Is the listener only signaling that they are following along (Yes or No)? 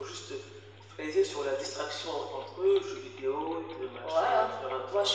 No